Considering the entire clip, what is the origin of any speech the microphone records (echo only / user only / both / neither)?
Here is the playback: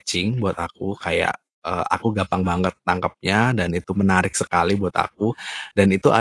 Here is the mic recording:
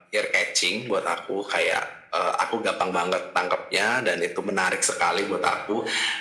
echo only